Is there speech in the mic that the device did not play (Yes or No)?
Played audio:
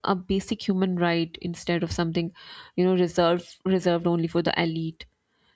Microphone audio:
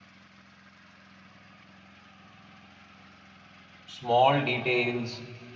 Yes